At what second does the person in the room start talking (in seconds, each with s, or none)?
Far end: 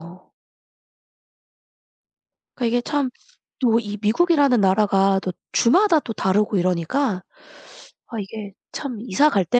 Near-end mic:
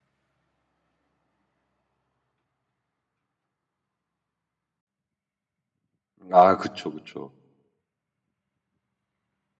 6.3 s